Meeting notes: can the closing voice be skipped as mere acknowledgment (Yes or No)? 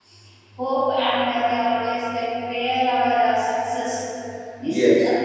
Yes